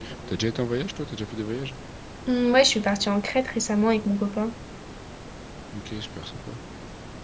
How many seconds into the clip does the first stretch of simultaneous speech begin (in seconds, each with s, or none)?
none